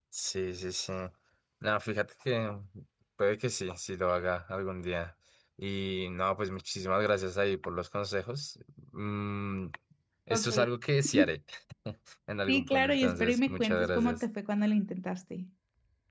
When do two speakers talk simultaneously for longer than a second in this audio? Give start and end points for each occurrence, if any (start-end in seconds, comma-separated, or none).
12.5-14.2